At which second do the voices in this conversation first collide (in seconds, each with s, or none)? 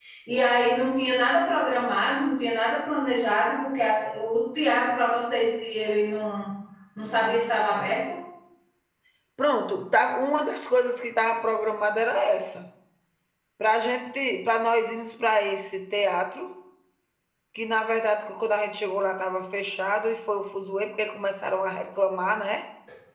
none